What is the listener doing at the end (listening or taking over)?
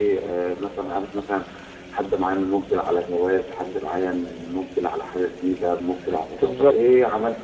listening